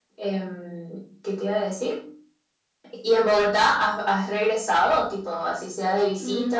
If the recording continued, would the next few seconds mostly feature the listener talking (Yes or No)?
Yes